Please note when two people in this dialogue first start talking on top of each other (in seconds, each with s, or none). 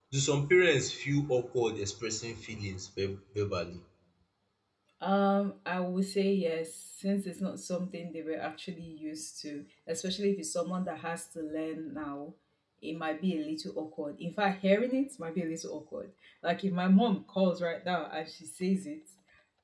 none